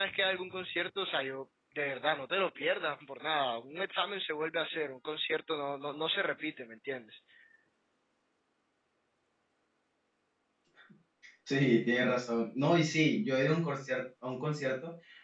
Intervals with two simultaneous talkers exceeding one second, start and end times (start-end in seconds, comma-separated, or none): none